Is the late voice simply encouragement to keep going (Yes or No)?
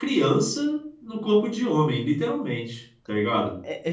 No